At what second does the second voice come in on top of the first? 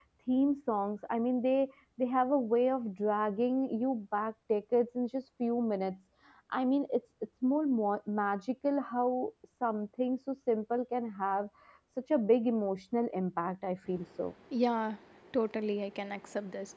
none

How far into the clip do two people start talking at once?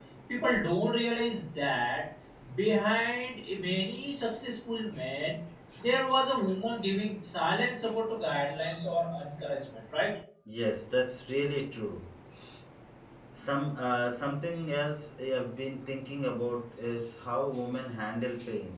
none

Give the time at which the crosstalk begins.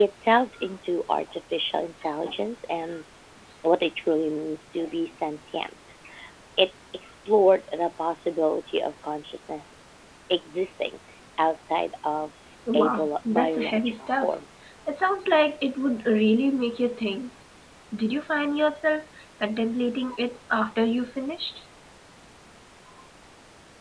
12.7 s

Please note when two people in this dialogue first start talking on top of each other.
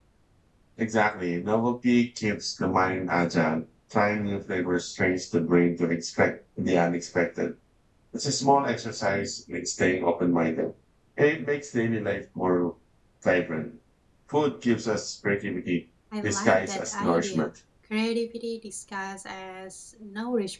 16.2 s

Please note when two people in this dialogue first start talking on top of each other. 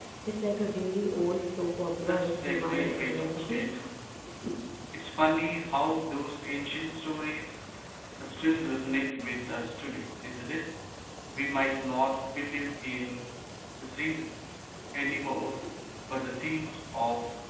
2.0 s

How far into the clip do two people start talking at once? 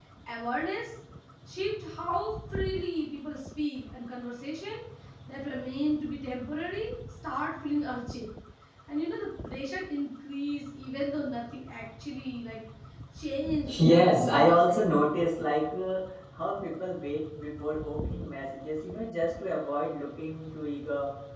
13.8 s

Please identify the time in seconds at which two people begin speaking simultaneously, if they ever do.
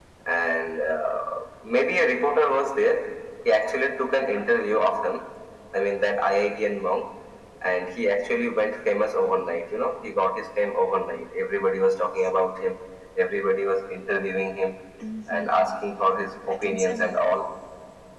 15.3 s

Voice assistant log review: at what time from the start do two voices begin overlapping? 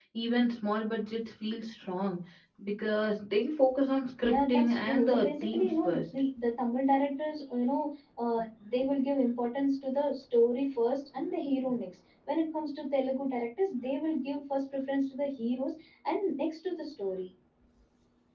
4.2 s

